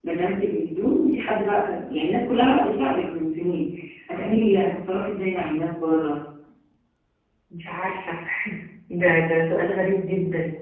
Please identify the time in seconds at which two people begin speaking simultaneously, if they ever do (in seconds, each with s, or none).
none